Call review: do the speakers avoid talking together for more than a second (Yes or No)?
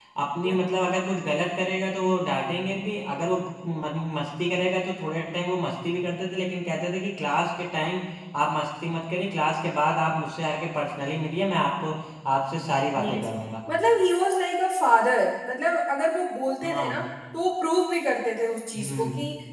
Yes